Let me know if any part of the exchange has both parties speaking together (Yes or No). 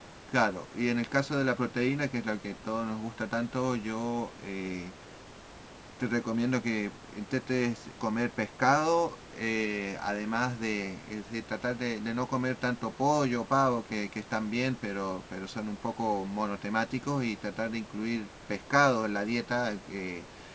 No